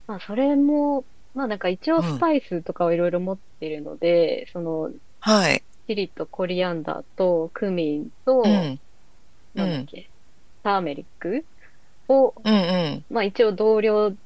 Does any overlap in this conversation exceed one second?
No

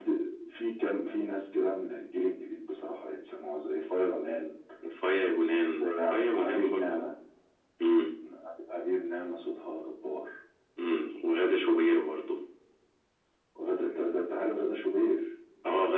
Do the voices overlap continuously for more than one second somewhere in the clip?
Yes, from 5.8 s

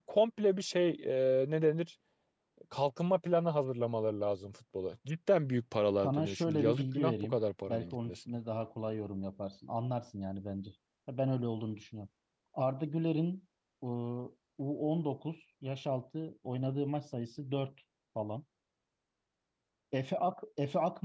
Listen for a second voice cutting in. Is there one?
Yes, from 6.0 s

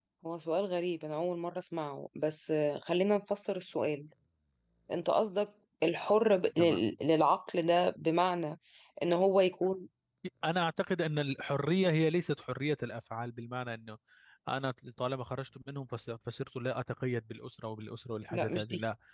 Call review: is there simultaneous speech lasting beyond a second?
No

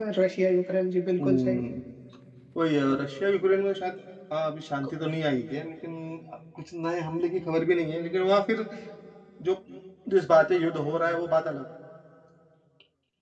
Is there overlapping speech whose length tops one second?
No

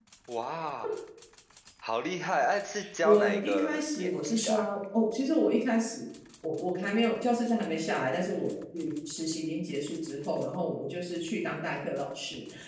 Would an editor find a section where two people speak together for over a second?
Yes, from 2.8 s

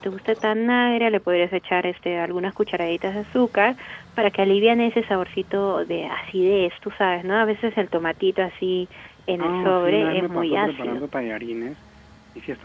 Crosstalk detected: Yes, from 9.4 s

